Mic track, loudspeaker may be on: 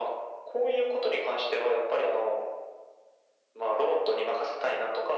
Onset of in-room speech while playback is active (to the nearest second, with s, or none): none